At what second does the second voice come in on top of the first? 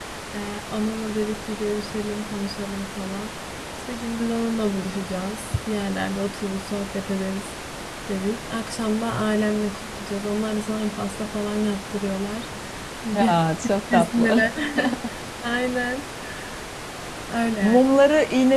13.1 s

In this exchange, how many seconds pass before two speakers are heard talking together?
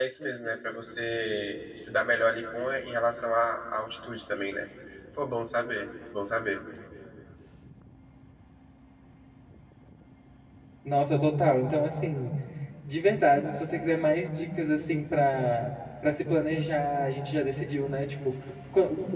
none

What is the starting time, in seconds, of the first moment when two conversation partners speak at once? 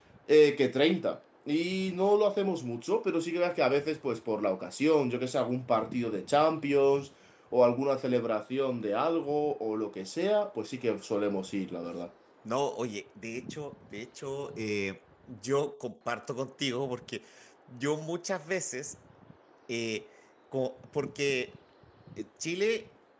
none

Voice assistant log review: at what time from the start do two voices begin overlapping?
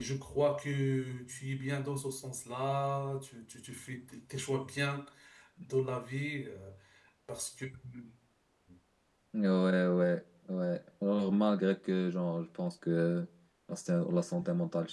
none

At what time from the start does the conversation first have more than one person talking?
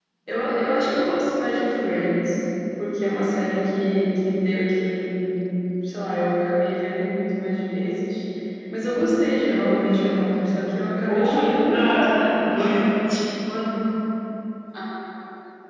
11.1 s

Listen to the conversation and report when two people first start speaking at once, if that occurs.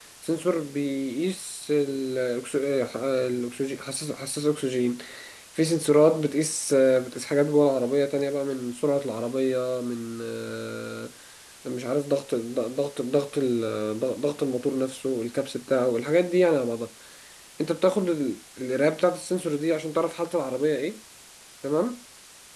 none

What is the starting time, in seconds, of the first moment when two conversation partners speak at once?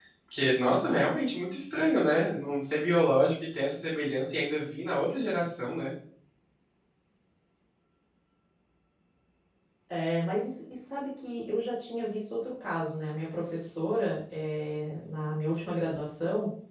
none

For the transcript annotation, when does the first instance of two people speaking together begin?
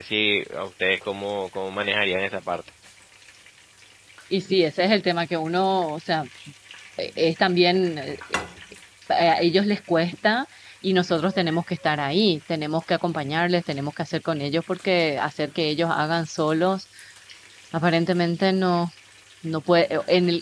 none

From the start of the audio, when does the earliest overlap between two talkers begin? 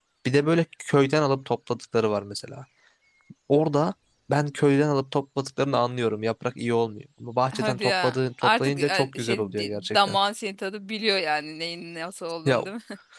7.5 s

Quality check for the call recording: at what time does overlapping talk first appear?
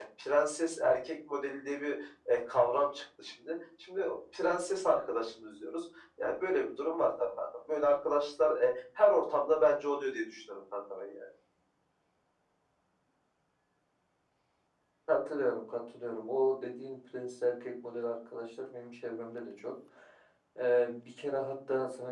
none

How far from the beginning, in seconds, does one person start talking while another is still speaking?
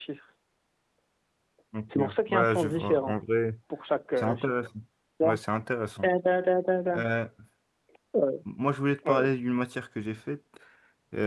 2.0 s

